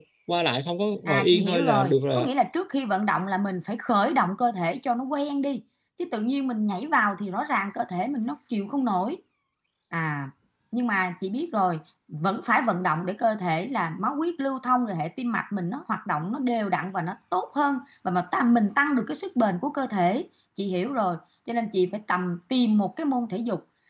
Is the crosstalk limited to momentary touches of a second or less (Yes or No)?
No